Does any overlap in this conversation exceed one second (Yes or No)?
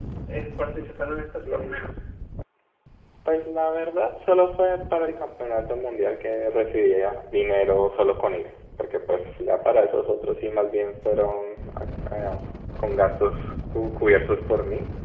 No